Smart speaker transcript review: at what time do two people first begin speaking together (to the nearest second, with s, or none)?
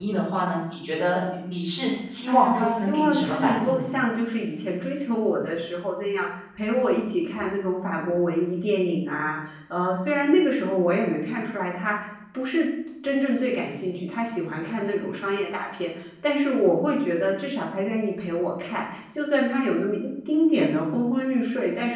2 s